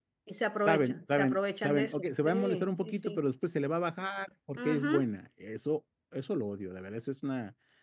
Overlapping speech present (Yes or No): Yes